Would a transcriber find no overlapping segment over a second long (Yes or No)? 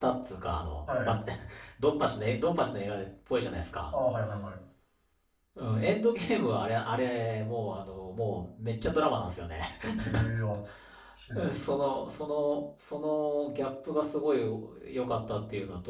Yes